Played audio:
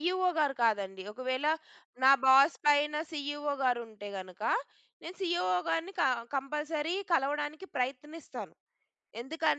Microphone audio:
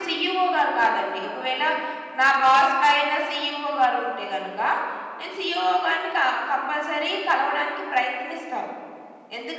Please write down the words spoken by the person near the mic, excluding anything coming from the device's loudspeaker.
none

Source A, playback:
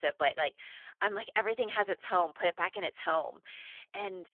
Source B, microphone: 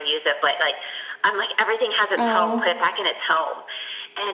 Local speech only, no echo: Oh.

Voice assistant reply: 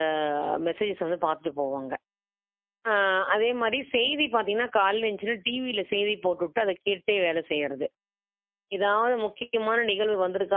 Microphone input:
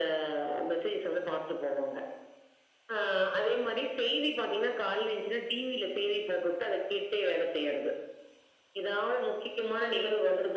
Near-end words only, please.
none

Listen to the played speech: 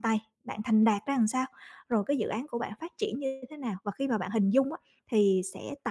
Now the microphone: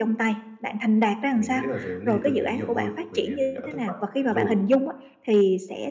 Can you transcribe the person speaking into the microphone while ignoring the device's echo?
mình nghĩ là về vấn đề tâm lý nhiều hơn, bởi vì mình đã thất bại trong đấy rồi,

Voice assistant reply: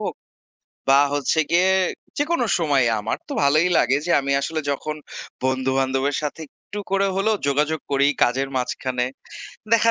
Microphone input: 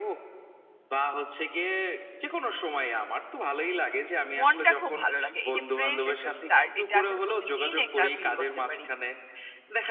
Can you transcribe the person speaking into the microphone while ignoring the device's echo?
মনটা খুব ভালো লাগে। এই যে ফ্রেশ একটা স্টার্ট, এটা আমি প্রতিদিন এটা ফিল করতে পারি।

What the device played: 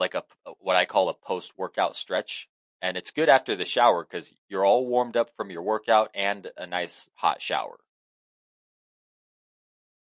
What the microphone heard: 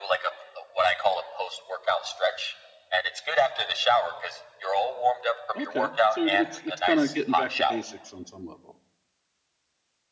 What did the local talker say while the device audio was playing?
Okay. So it- it's it's kind of getting back to basics on some level.

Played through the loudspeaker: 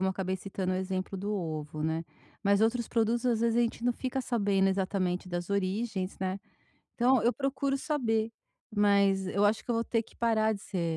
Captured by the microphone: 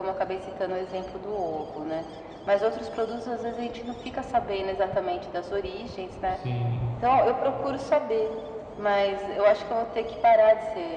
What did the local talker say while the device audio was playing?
sim.

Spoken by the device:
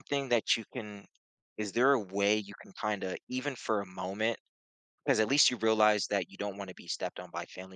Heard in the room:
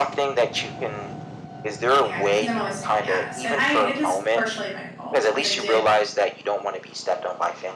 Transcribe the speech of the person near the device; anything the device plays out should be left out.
and because I'm always saying yes. And I it is partially my fault because I did

